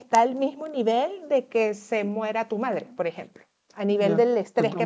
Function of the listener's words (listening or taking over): taking over